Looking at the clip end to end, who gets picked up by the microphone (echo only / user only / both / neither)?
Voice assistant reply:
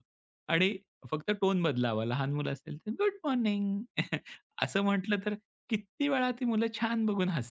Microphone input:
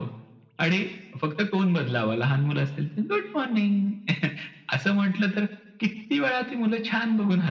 echo only